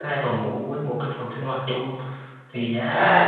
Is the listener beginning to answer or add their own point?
No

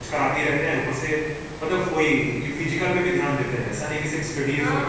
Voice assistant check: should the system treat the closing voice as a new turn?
Yes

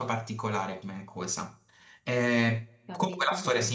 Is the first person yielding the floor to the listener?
No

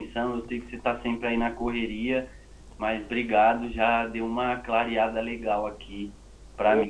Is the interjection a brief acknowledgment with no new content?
No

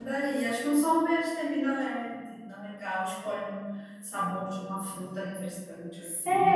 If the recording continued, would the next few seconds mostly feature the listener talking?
Yes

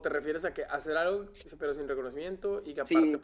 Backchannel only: No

